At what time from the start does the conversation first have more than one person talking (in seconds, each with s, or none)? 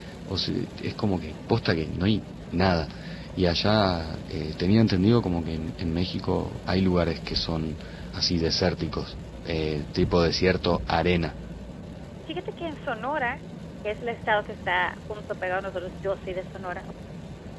none